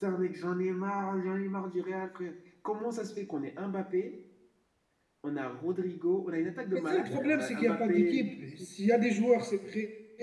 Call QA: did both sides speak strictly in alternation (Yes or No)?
No